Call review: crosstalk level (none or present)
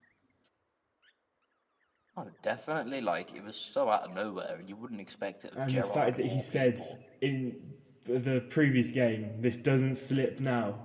present